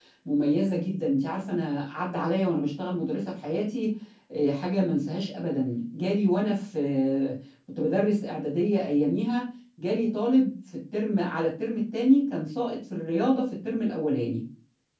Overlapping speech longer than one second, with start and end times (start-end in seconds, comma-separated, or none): none